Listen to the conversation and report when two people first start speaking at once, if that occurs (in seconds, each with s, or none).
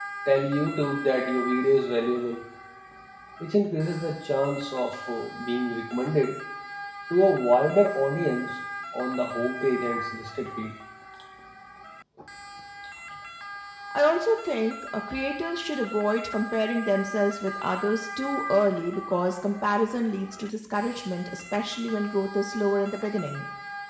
none